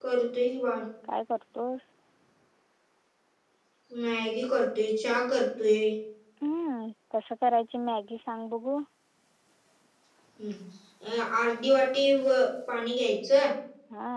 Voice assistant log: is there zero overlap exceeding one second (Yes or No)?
Yes